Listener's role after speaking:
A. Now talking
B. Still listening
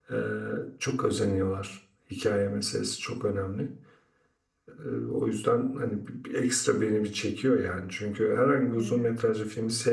B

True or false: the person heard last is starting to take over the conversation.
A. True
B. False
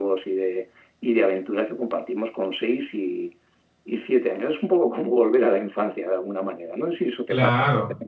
A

